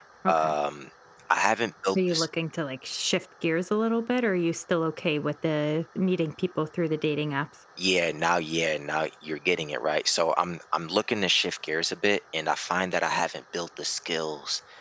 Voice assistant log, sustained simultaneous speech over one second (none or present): none